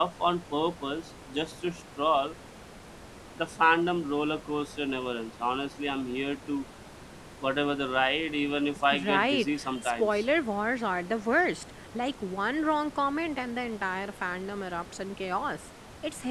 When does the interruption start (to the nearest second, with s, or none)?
9 s